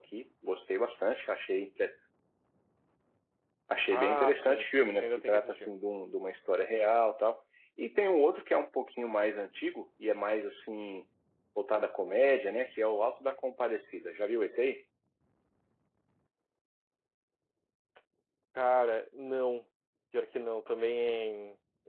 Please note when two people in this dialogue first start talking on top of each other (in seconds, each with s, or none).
3.9 s